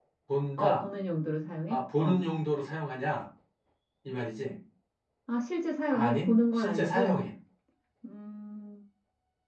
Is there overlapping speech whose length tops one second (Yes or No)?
Yes